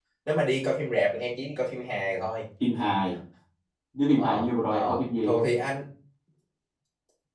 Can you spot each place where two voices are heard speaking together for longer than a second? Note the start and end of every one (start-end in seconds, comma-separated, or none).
4.2-5.4